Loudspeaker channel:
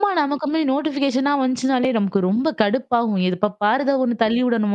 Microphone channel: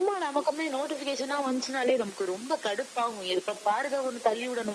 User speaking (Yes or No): No